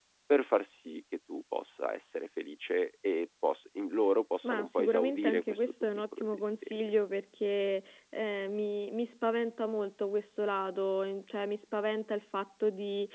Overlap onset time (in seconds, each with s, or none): 4.4 s